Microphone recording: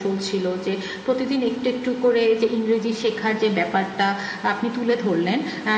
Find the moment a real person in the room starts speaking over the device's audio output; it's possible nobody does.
none

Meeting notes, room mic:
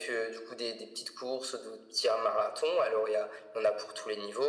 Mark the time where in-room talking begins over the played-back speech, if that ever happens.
none

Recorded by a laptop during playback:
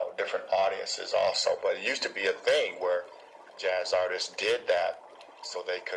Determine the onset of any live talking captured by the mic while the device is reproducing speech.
none

